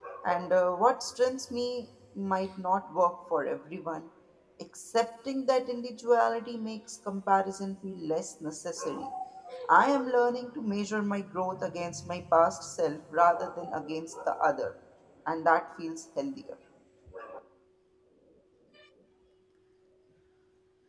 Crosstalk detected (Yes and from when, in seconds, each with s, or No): No